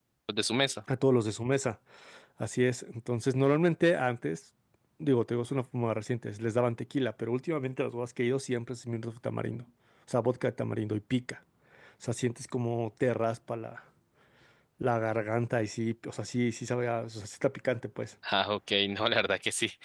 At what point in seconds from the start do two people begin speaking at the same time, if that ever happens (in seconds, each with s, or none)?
none